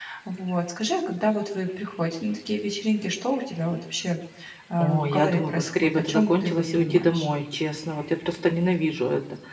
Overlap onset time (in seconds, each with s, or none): 4.8 s